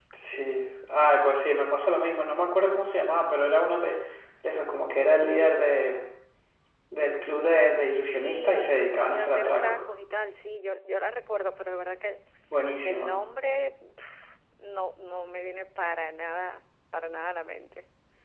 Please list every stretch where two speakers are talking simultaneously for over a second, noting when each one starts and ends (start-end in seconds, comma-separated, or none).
7.9-9.8